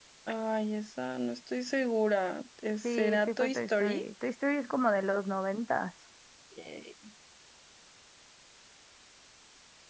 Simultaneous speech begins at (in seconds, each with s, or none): 2.8 s